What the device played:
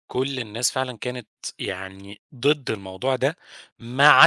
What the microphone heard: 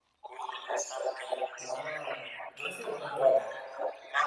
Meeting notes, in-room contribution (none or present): present